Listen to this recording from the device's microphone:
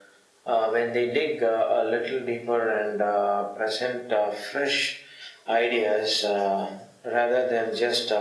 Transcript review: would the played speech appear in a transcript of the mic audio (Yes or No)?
Yes